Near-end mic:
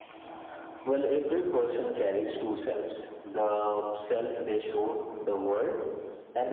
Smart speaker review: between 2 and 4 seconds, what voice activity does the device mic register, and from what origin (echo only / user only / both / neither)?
echo only